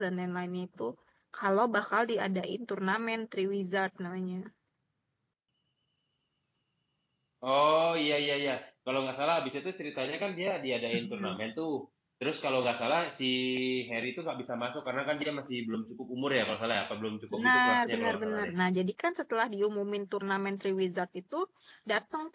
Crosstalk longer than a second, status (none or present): present